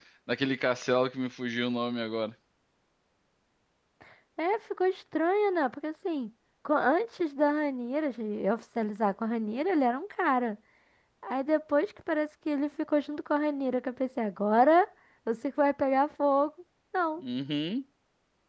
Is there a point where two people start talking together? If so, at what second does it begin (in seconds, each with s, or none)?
none